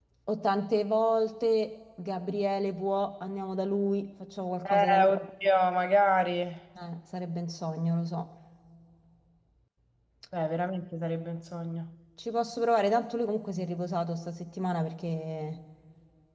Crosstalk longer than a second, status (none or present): none